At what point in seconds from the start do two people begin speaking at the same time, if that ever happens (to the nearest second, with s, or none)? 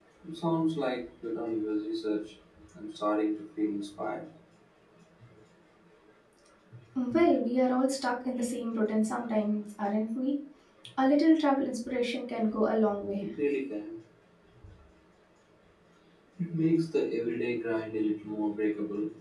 none